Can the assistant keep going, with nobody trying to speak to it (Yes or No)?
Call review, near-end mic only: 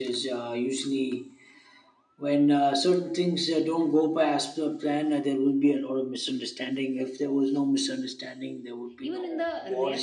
No